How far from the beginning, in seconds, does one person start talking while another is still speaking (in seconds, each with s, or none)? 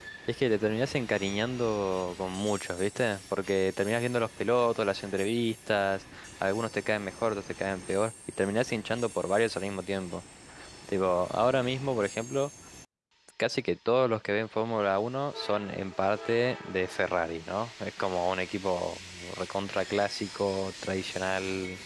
none